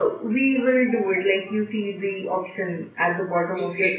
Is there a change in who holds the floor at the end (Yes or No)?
Yes